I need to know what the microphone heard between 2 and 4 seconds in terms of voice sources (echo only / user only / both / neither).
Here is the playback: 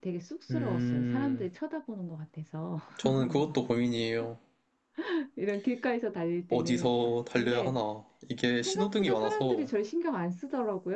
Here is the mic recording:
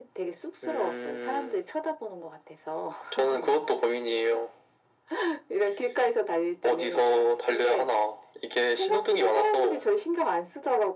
echo only